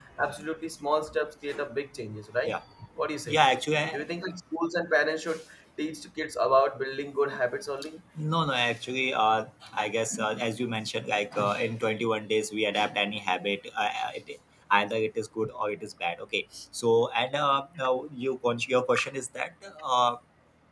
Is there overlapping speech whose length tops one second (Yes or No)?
No